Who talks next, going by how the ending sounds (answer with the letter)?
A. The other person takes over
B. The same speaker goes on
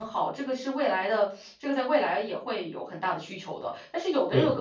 B